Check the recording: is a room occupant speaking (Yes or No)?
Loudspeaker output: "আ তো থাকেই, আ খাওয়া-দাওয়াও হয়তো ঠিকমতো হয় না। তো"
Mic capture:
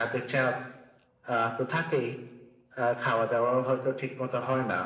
No